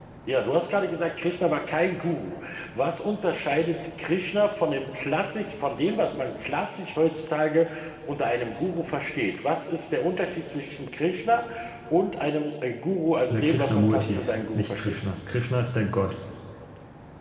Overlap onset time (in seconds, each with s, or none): 13.3 s